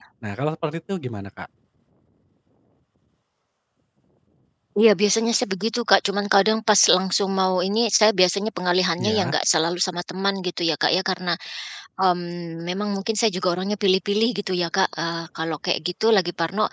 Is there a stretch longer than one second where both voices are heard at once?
No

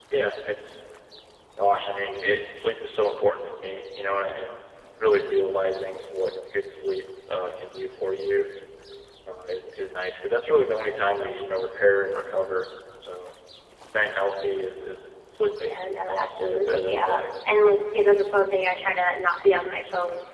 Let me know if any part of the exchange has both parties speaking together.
Yes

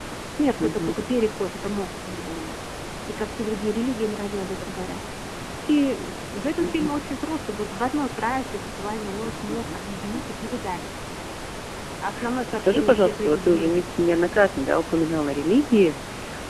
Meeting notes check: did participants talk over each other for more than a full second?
Yes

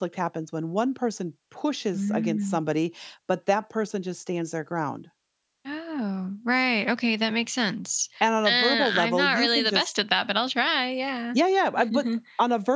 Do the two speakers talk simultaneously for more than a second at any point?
Yes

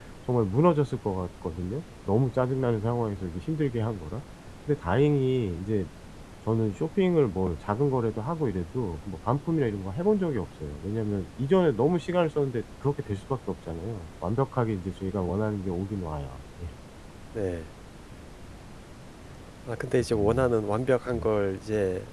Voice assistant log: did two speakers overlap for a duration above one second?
No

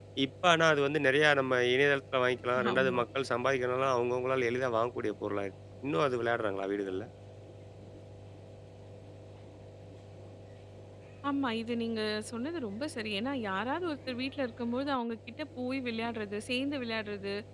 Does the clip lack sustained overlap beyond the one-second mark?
Yes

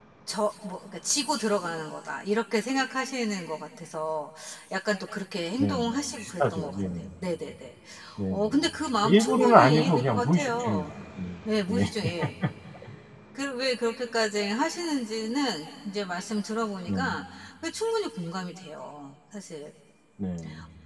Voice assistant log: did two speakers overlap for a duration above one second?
Yes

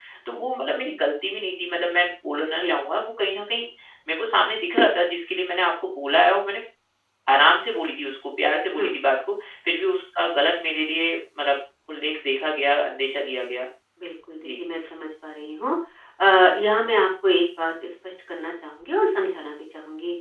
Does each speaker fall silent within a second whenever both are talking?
Yes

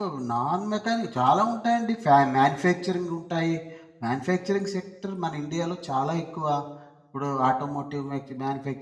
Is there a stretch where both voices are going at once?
No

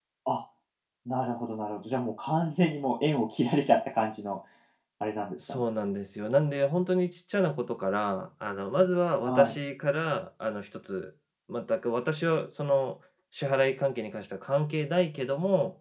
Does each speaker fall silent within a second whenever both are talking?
Yes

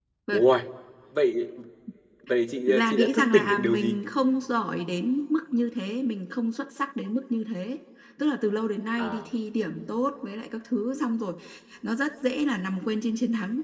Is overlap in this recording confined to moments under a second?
No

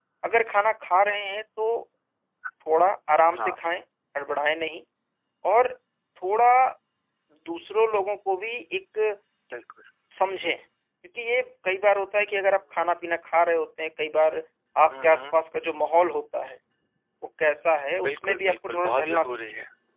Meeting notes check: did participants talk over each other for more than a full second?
Yes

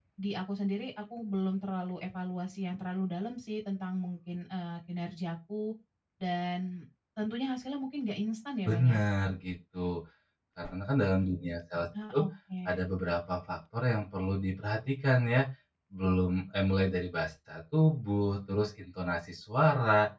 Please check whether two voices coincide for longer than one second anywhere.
No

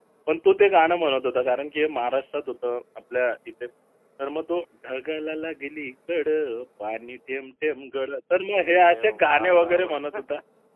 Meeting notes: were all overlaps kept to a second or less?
No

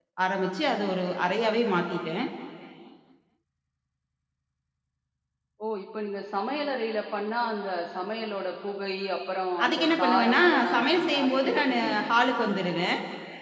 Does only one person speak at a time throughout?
No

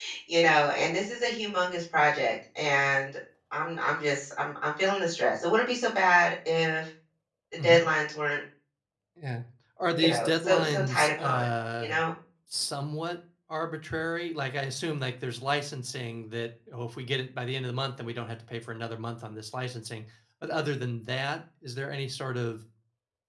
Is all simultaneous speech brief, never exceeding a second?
No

